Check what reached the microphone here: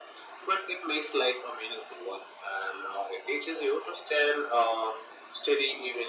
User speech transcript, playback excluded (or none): none